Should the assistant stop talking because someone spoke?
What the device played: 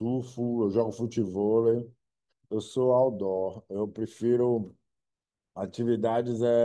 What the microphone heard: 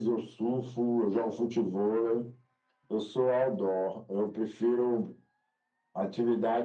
No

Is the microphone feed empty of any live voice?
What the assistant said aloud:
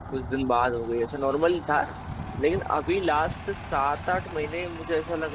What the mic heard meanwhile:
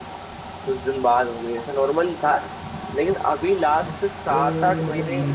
No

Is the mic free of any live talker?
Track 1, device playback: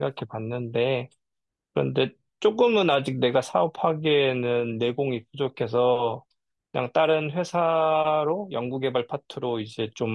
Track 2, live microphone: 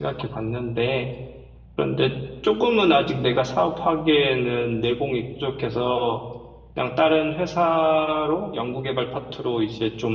Yes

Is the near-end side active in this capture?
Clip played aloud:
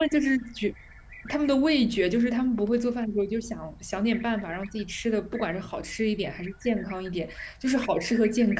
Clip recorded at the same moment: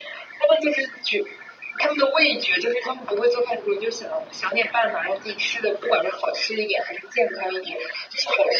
No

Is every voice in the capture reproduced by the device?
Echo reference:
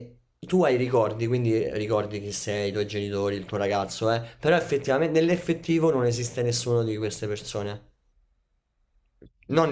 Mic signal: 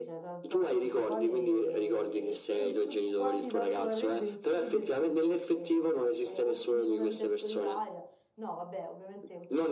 No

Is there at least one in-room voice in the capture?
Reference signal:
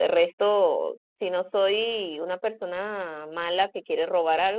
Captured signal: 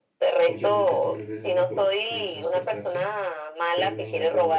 Yes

